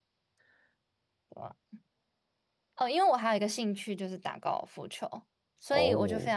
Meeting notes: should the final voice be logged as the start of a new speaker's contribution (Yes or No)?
No